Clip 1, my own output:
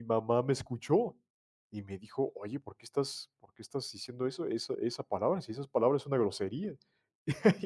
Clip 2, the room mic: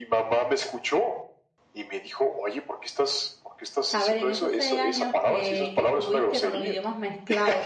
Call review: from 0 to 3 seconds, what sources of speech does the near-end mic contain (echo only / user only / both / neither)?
echo only